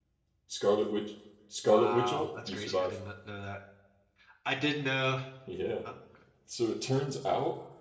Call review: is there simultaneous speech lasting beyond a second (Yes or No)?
Yes